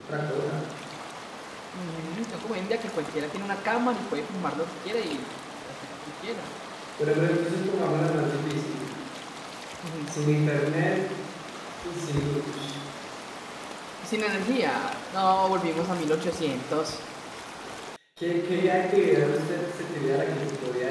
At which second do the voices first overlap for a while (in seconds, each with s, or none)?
none